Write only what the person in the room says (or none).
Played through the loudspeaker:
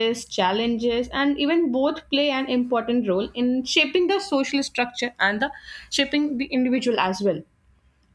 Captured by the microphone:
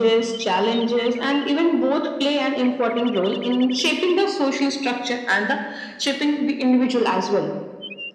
none